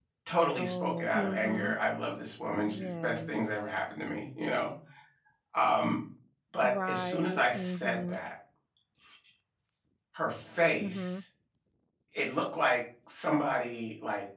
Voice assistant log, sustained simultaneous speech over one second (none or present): present